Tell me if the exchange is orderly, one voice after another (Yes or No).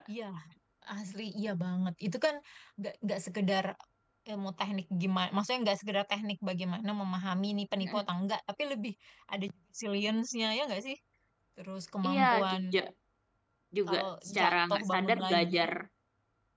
No